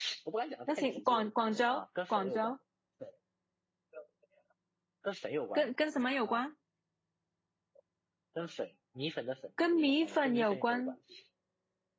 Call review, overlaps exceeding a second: present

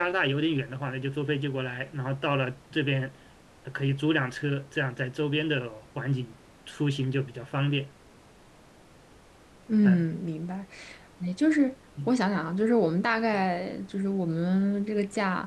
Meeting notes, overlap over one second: none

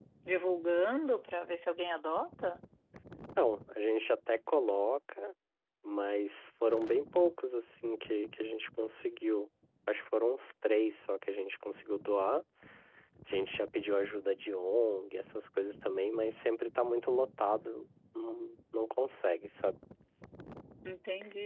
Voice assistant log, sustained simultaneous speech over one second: none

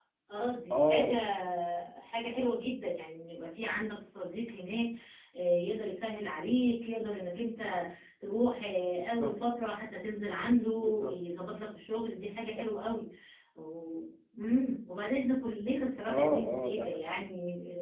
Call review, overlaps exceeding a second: present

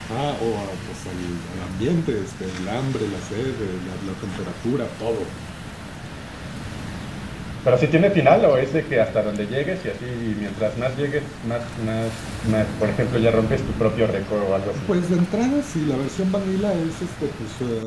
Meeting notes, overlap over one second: none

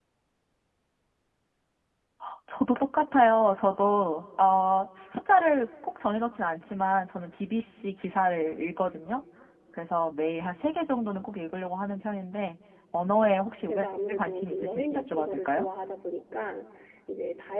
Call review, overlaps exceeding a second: present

